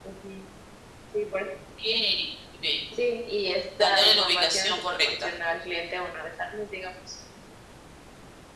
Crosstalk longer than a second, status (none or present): present